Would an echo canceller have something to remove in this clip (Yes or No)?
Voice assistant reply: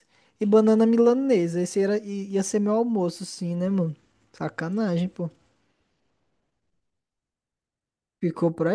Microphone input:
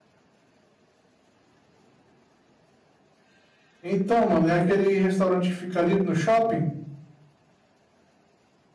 No